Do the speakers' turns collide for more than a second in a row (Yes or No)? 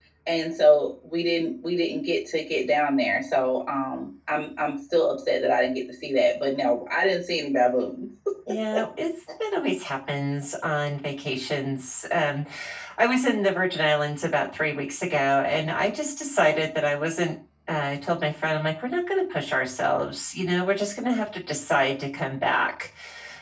No